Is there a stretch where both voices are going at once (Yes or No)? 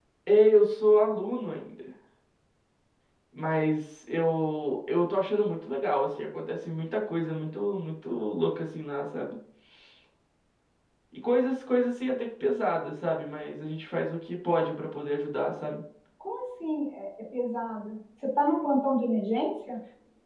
No